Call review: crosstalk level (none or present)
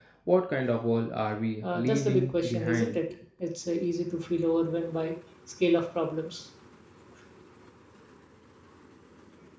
present